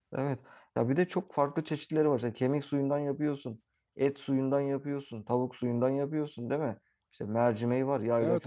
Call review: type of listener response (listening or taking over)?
listening